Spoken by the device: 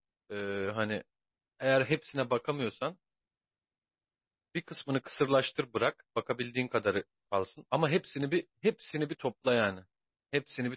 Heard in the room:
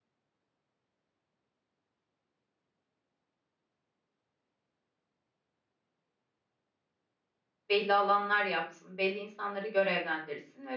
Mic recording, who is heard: user only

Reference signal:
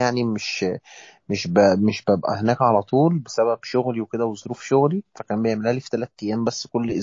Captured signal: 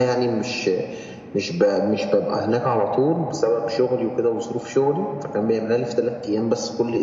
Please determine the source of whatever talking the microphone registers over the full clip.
echo only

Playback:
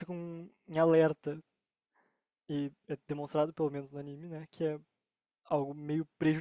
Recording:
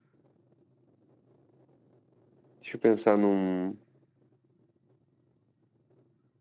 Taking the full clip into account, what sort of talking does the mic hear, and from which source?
user only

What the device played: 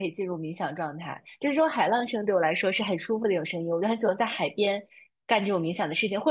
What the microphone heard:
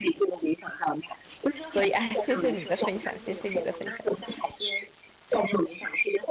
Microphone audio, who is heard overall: both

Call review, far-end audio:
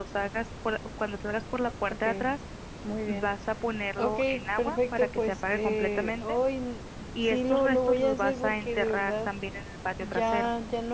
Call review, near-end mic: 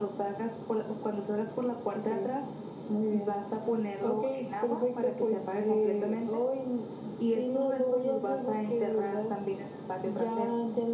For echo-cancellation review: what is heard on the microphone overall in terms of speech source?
echo only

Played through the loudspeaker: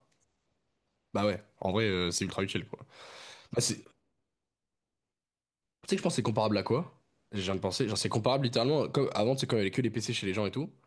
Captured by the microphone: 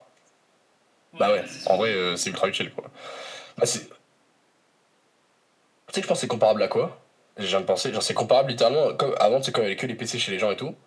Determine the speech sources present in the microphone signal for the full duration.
both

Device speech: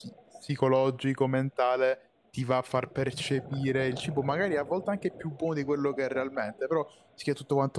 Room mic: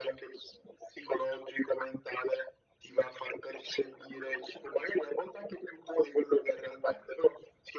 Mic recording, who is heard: echo only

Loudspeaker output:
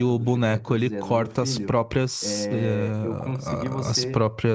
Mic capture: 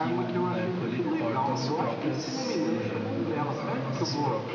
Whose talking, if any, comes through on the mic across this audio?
both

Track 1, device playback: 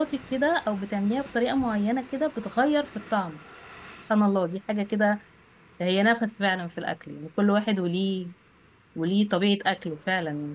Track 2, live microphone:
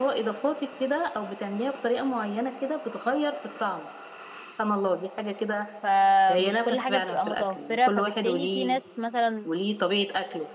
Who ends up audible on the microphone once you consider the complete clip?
both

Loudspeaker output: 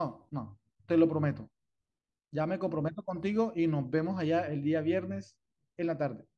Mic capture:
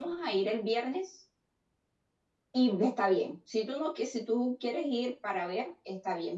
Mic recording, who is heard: user only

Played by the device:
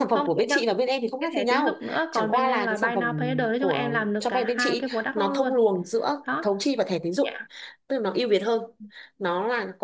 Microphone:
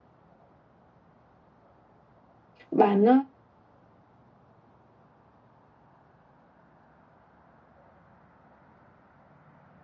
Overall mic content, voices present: user only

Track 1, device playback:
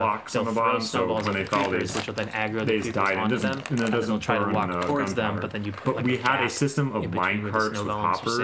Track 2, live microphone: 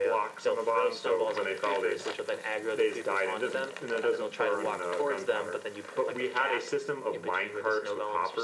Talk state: echo only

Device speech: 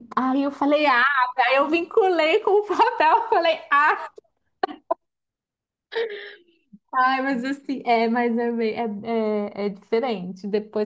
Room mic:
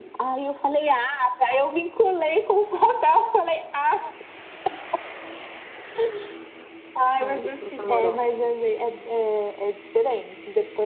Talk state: both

